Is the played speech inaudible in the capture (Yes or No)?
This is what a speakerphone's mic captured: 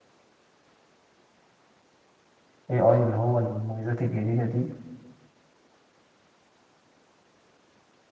Yes